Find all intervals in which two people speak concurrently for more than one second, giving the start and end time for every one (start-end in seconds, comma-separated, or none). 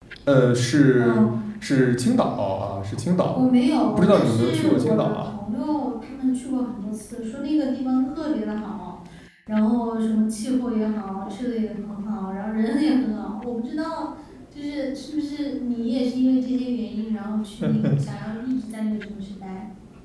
3.9-5.2